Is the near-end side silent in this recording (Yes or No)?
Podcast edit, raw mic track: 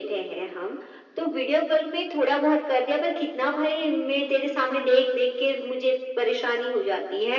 Yes